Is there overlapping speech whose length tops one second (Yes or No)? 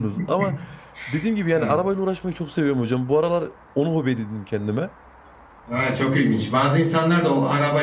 No